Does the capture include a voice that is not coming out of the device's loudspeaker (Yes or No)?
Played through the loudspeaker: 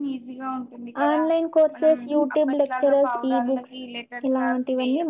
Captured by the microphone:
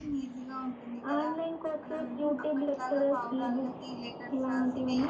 No